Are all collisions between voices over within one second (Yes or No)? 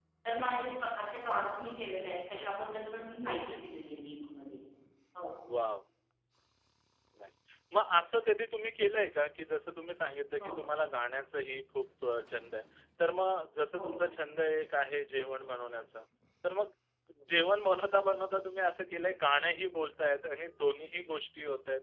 Yes